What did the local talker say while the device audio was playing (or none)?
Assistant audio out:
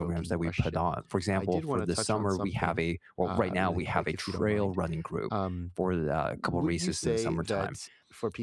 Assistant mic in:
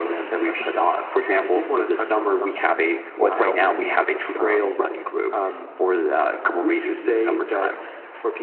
what helps me, um,